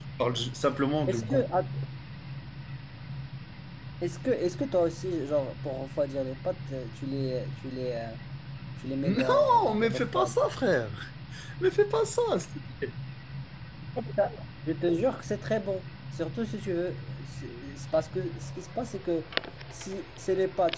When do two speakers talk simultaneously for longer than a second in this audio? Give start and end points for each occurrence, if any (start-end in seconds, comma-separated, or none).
9.0-10.4